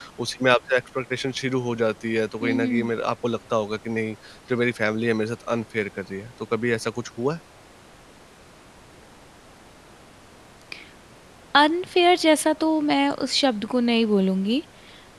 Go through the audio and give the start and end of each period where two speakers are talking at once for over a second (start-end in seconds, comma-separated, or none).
none